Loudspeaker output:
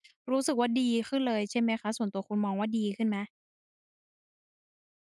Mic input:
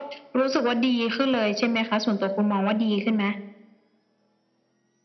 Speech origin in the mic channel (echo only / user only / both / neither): echo only